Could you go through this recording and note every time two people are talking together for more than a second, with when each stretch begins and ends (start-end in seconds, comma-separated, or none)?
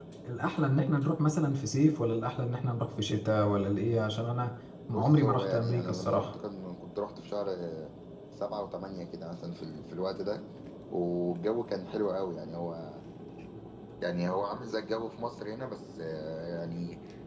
4.9-6.3